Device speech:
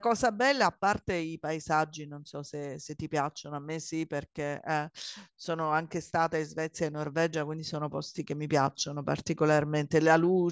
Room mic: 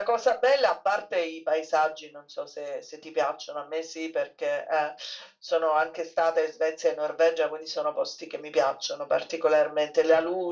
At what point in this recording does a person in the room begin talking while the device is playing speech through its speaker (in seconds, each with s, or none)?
none